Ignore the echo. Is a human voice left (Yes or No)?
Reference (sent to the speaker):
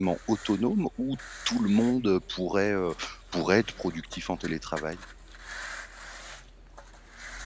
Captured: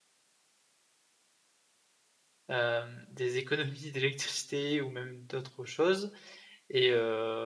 Yes